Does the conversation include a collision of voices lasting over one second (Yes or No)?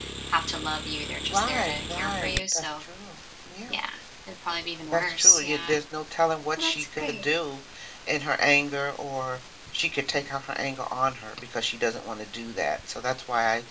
Yes